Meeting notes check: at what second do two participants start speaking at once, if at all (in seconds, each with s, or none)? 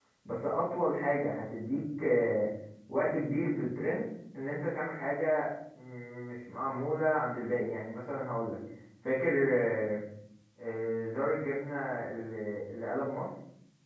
none